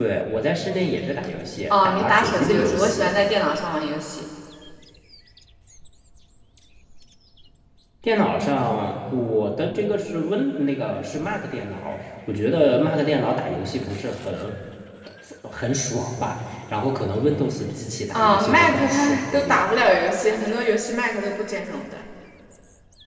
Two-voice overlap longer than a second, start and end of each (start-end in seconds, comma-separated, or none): 1.7-3.1, 18.1-19.7